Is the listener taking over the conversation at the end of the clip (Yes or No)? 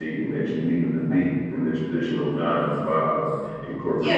Yes